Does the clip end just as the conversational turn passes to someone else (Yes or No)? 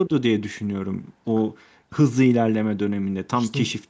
No